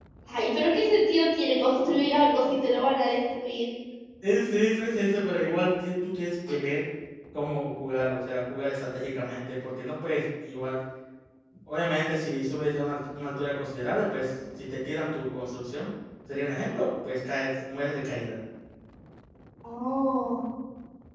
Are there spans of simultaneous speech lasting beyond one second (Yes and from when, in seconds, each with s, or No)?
No